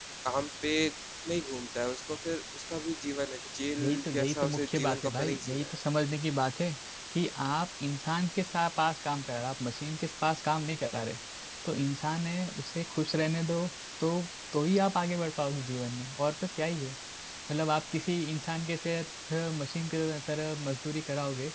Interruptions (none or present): present